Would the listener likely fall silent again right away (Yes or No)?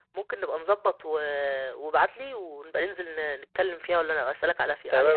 No